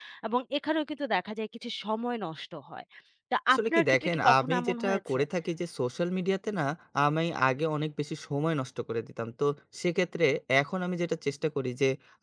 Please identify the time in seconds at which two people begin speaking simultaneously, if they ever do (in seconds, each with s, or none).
3.5 s